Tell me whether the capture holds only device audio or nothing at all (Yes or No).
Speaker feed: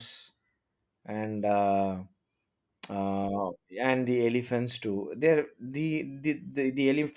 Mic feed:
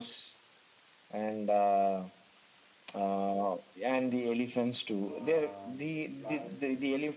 No